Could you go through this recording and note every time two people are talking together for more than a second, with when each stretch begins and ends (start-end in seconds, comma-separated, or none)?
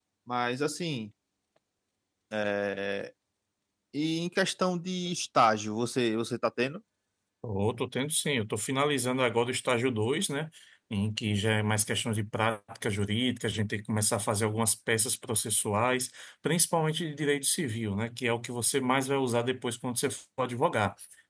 none